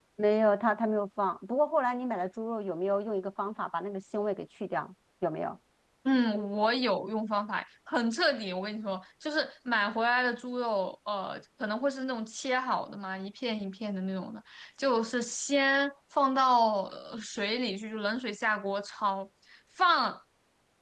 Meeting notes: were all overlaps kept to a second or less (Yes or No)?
Yes